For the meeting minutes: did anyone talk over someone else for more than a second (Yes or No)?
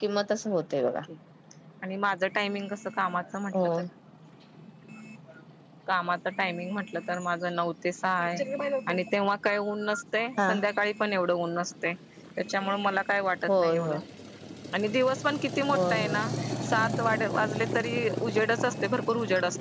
No